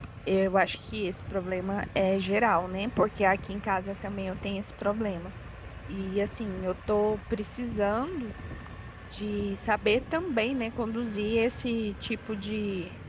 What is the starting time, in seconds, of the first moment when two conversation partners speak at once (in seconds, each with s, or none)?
none